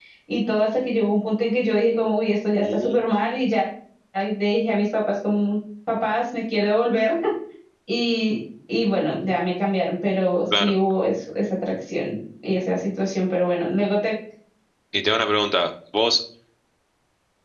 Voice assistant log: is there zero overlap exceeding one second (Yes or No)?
Yes